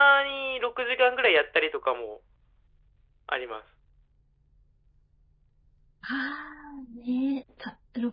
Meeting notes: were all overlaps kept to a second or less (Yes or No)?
Yes